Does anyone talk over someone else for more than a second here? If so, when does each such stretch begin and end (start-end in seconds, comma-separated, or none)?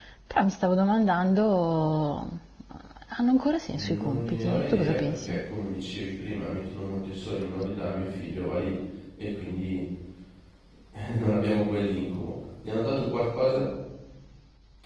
3.7-5.4